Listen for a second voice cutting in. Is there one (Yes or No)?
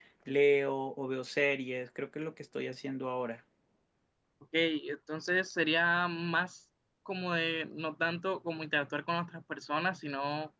No